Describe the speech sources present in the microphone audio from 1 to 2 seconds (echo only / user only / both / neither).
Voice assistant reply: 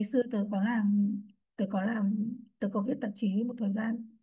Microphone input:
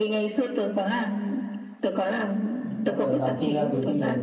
echo only